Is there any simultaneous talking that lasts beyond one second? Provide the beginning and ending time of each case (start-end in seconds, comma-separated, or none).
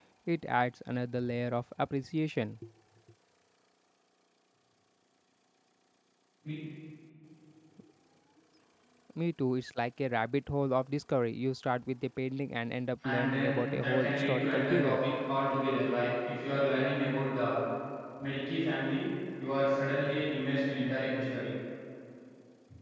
13.1-15.0